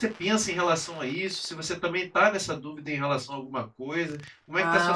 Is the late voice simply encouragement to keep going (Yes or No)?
No